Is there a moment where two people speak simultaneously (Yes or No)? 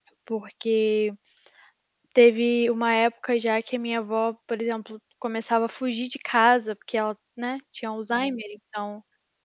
No